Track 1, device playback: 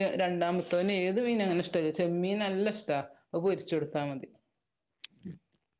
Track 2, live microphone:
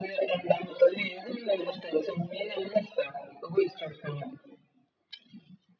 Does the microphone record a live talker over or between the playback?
No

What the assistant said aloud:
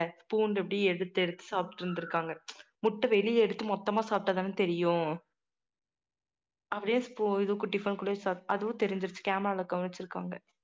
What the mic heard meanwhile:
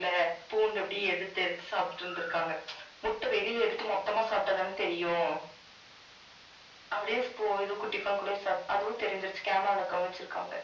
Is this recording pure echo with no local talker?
Yes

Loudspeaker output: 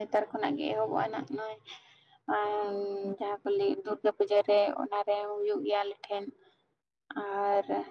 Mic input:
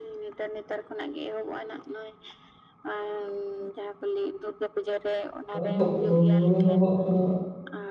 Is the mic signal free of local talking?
No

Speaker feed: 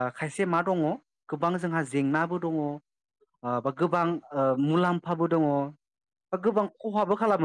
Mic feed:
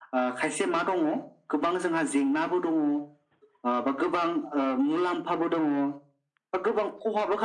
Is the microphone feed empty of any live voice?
Yes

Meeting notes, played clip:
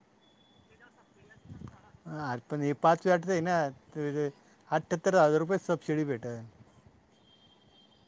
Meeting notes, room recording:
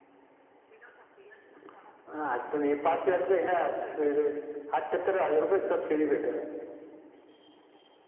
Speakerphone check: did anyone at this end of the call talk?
Yes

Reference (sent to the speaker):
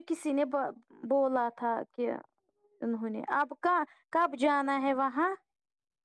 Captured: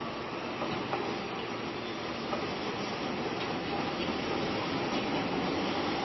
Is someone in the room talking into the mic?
No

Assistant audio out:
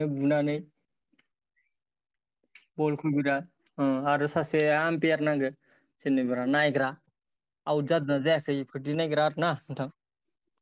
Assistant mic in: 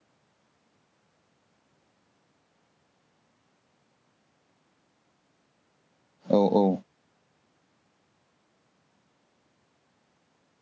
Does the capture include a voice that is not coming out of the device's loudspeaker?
Yes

